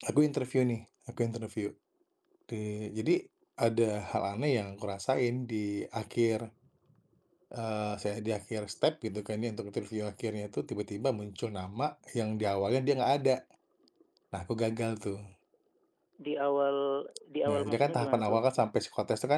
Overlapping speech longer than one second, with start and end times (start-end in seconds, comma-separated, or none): 17.5-18.7